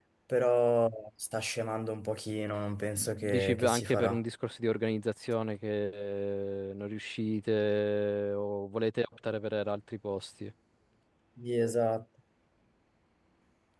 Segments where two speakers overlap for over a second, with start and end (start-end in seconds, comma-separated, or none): 3.0-4.2